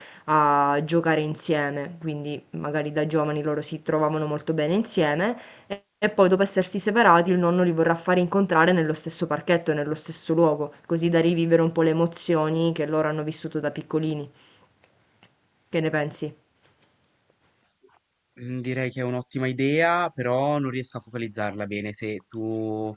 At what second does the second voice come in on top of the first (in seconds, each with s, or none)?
none